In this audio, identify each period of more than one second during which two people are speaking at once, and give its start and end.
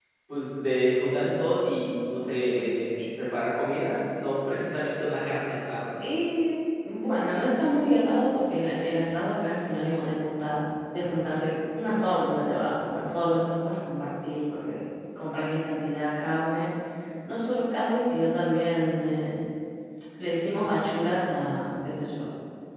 none

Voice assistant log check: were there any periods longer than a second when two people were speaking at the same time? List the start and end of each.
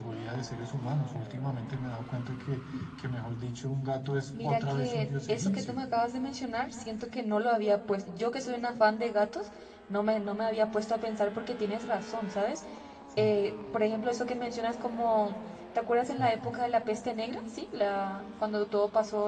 4.4-5.8

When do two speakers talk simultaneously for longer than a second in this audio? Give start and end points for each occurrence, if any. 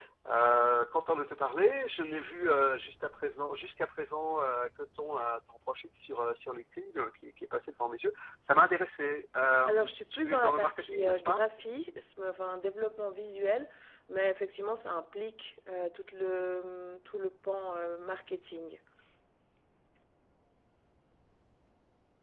9.7-11.4

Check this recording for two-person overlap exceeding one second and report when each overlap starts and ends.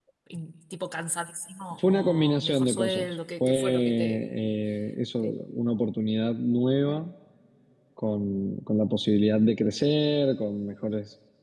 1.8-4.2

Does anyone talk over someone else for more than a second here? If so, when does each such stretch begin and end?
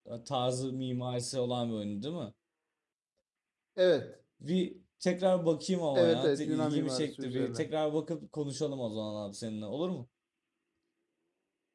6.0-7.7

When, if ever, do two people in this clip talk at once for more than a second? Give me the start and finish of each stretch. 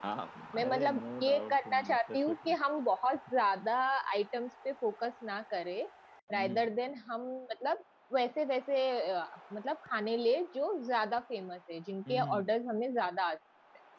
0.6-2.5

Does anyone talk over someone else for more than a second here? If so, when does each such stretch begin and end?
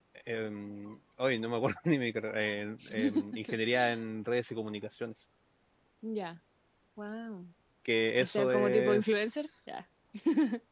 8.2-9.5

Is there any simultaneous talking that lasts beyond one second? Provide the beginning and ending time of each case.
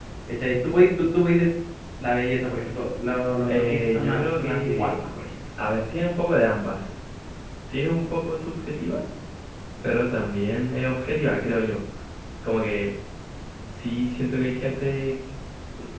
3.5-4.9

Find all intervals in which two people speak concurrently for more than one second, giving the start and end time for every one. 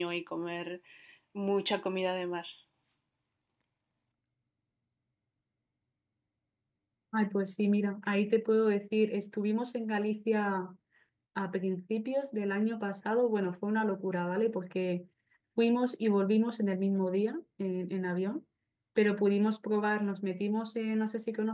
none

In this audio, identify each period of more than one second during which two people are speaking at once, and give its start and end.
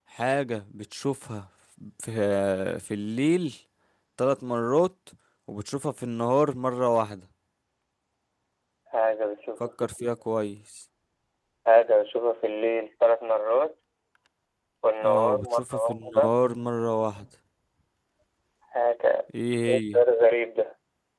15.0-16.3

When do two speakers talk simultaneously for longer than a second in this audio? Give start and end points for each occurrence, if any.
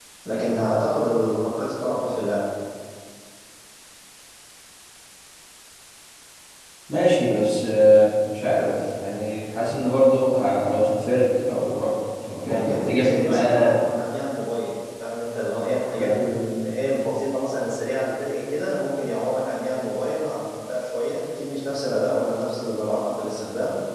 12.4-13.7

